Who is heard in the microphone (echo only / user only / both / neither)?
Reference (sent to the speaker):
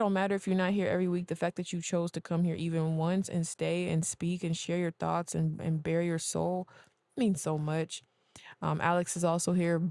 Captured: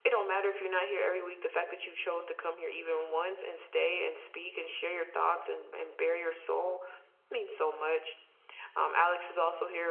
echo only